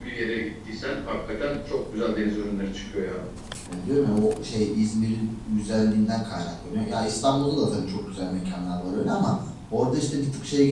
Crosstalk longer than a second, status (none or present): none